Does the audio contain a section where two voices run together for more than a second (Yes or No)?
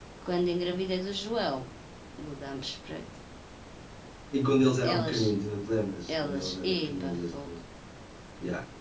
Yes